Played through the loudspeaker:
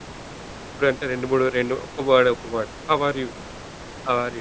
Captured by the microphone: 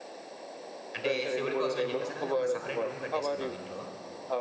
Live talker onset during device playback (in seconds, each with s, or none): 1.0 s